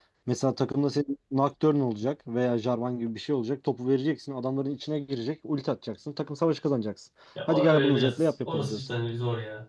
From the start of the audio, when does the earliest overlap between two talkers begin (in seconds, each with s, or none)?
7.3 s